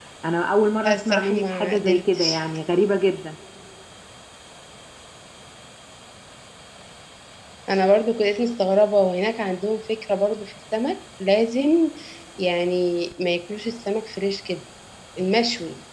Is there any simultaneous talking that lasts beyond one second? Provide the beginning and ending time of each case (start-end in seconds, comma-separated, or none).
0.8-2.4